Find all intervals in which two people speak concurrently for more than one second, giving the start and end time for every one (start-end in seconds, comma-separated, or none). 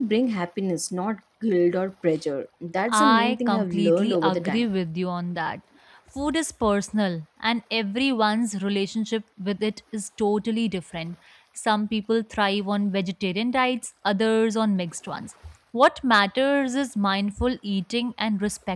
2.9-4.7